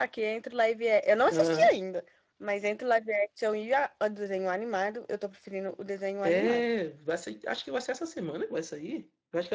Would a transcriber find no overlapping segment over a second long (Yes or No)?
Yes